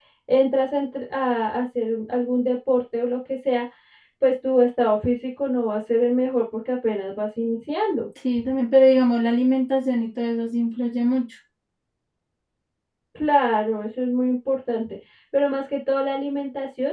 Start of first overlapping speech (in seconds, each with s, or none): none